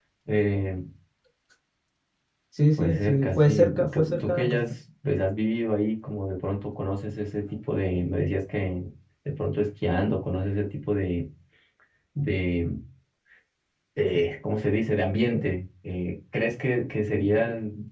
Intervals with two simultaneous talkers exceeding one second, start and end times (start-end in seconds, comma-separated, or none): 2.8-4.6